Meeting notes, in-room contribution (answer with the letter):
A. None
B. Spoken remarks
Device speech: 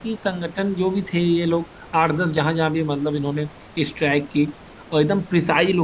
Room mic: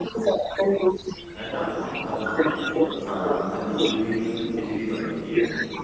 B